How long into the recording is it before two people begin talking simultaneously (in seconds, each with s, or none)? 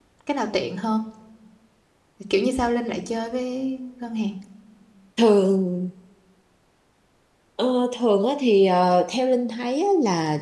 none